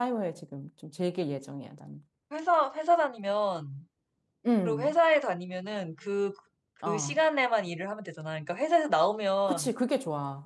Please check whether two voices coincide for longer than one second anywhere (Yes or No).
No